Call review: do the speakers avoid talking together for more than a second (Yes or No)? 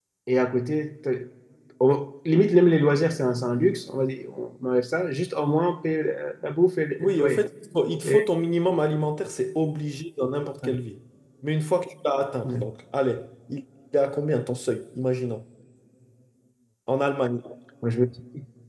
Yes